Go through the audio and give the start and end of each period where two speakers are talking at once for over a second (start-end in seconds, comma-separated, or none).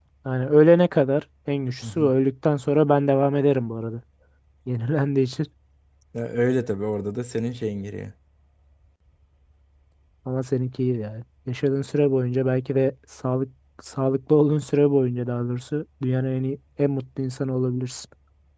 none